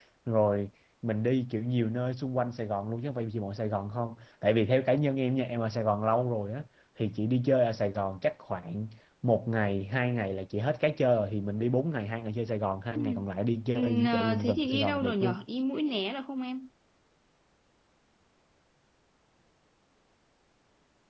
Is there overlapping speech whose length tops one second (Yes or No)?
Yes